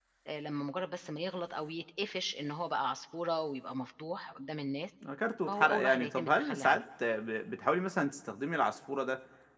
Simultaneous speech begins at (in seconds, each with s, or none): 5.5 s